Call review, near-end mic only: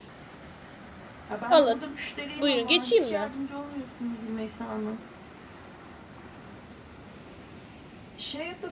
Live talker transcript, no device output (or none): Alın. Buyurun geçeyim mi?